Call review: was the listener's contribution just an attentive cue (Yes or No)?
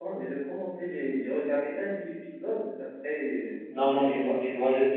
No